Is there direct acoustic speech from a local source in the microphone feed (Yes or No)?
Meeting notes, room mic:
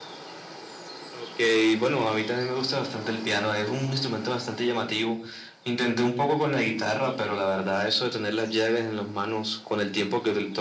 No